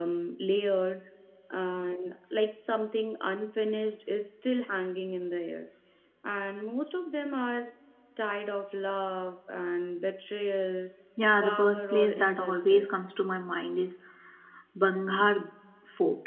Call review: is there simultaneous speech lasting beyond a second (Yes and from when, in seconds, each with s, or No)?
Yes, from 11.4 s